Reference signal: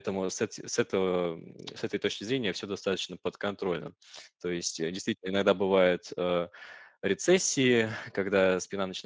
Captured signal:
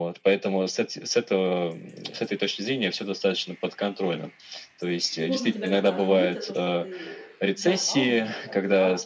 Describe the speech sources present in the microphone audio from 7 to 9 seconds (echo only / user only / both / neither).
both